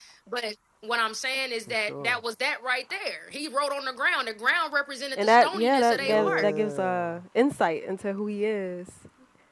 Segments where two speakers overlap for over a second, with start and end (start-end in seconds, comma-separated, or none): 5.2-7.1